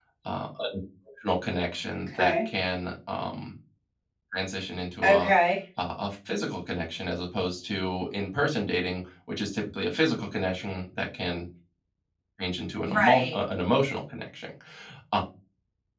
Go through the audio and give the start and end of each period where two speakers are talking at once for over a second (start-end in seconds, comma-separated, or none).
none